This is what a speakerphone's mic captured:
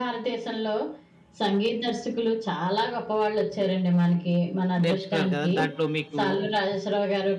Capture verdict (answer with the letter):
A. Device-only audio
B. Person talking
B